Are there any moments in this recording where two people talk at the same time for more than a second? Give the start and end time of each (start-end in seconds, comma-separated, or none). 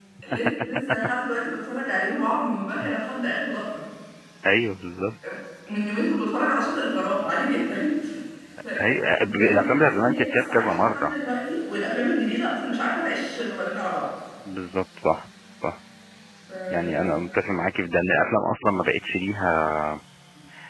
8.9-11.1